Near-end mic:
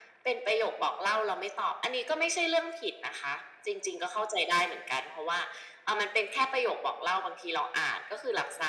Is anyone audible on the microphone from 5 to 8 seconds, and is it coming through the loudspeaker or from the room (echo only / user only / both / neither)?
echo only